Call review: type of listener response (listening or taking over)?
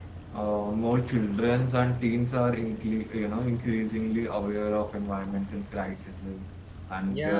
taking over